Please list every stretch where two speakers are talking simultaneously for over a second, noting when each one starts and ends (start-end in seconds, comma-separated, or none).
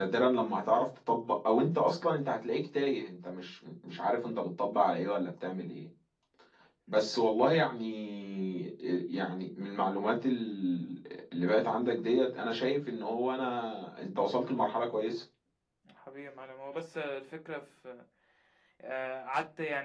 none